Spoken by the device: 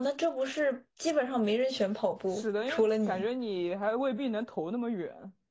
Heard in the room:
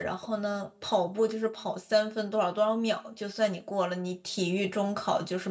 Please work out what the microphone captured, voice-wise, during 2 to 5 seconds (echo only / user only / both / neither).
user only